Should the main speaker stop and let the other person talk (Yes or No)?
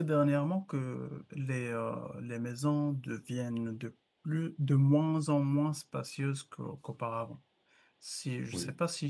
No